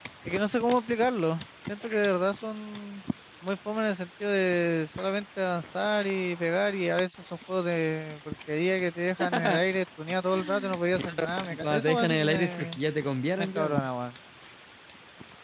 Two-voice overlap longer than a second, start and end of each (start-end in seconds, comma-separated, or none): 11.0-12.8